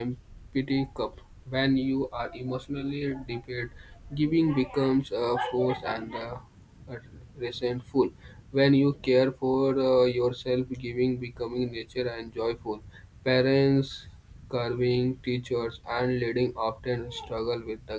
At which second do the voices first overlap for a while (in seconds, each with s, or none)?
none